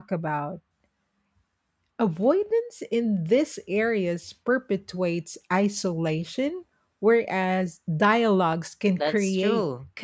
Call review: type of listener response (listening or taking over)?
taking over